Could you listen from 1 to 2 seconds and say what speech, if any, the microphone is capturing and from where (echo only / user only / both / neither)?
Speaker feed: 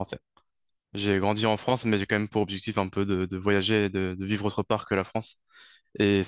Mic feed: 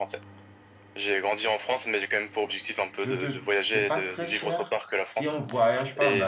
echo only